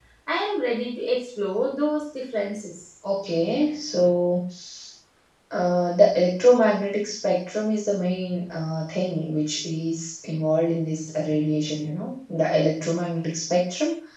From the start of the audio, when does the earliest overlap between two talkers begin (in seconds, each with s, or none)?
none